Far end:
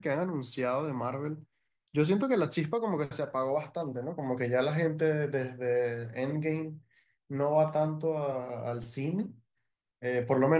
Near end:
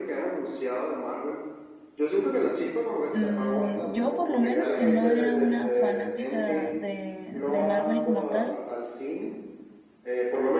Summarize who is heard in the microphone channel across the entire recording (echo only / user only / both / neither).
both